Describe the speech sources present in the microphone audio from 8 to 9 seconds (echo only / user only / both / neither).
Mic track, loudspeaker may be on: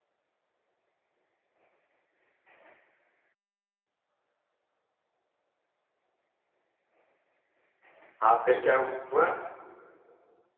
user only